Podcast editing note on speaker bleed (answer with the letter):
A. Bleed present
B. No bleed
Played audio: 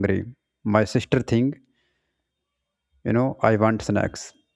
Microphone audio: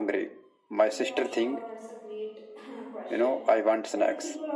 A